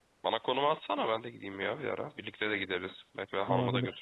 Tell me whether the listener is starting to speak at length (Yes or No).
Yes